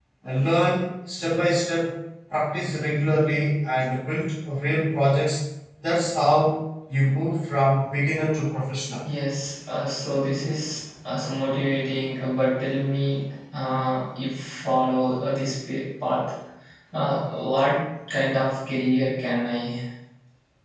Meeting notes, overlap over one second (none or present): none